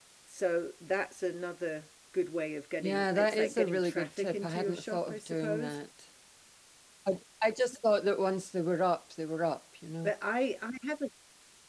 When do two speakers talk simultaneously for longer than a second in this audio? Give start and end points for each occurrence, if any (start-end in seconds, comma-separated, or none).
2.8-5.8